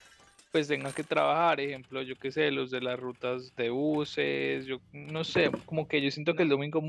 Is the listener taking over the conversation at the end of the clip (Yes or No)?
No